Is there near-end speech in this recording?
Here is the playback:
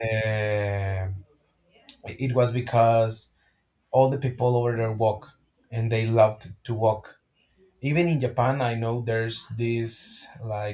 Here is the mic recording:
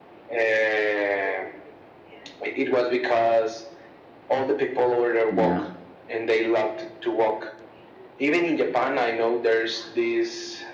Yes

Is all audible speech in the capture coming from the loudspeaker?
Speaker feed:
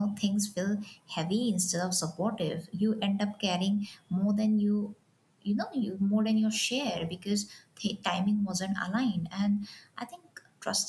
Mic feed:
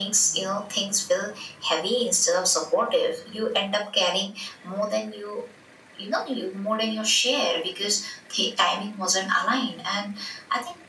Yes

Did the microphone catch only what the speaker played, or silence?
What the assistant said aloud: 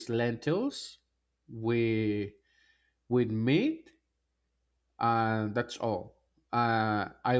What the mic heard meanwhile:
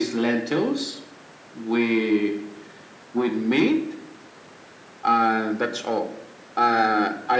Yes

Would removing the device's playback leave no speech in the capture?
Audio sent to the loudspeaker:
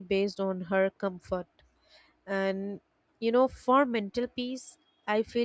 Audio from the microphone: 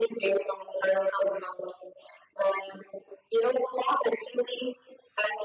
Yes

